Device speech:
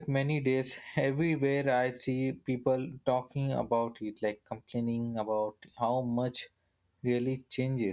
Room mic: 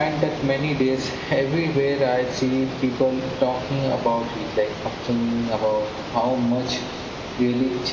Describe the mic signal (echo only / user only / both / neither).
echo only